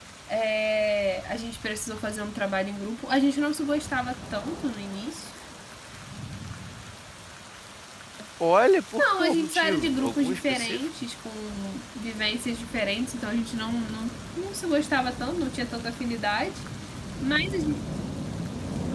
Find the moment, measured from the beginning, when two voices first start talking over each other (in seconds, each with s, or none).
9.0 s